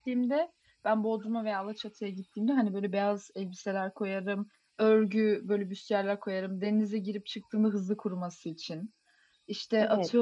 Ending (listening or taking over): listening